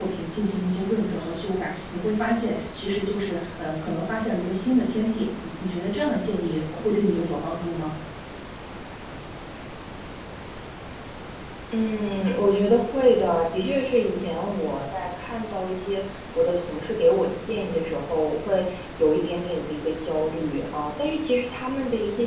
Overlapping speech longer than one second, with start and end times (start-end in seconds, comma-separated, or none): none